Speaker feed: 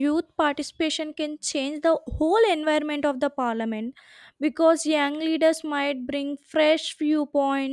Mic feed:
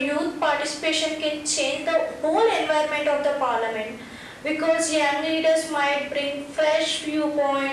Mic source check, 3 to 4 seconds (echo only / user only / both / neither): echo only